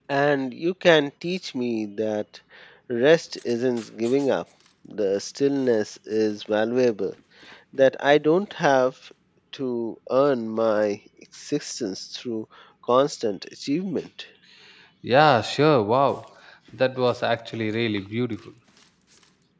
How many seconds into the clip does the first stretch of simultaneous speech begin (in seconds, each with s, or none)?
none